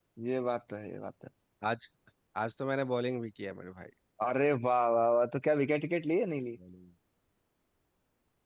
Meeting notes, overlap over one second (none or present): none